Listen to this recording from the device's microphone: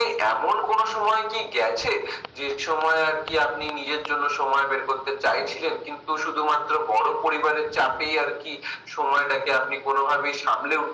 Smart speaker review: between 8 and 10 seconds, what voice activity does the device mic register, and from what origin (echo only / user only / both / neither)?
echo only